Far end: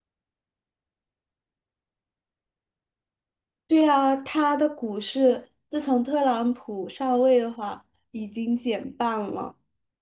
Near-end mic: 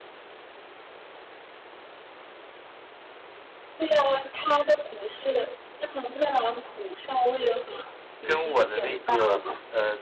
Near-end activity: present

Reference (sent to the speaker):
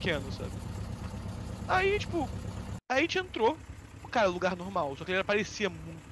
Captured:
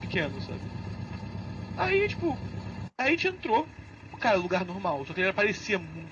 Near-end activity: none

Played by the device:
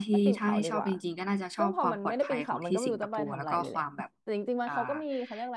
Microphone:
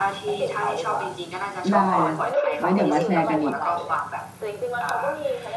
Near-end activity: present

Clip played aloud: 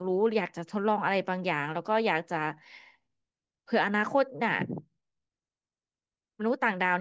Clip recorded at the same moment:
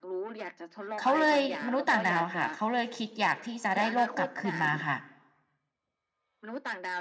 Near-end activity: present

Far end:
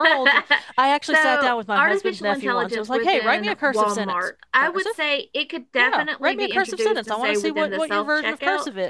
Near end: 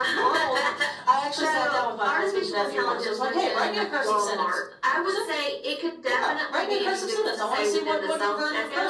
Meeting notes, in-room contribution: none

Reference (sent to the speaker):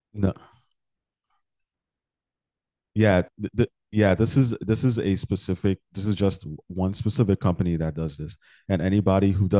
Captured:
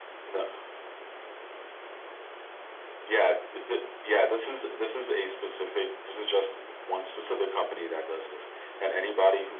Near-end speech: none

